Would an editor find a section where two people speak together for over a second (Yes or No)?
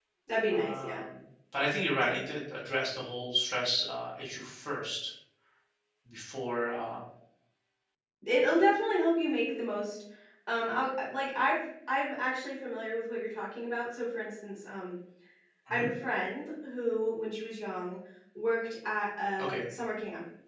No